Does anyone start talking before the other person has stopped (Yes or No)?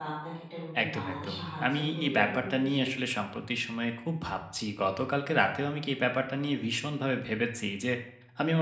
Yes